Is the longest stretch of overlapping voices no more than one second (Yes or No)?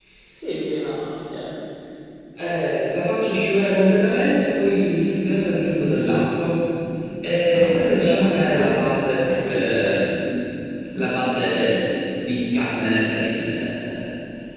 Yes